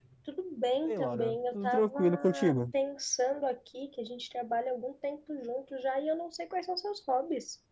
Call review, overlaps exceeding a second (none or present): present